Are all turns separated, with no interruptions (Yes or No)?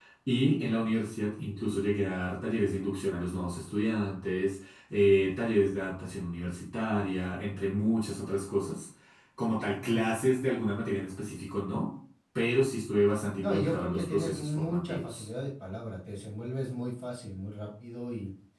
No